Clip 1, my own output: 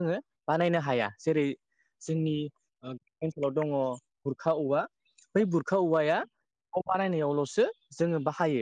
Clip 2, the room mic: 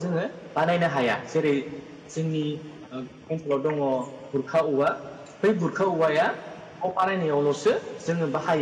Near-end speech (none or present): none